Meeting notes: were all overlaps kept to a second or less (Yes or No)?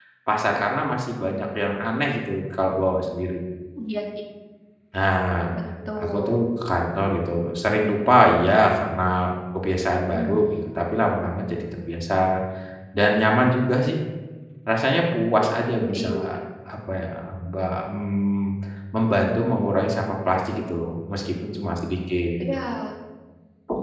Yes